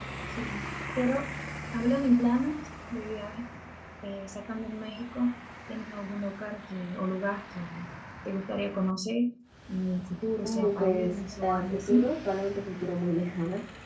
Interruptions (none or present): present